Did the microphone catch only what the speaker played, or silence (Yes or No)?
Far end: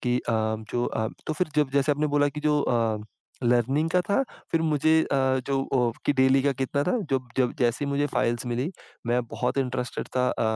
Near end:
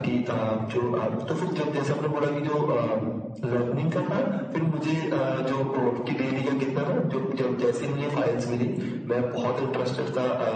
Yes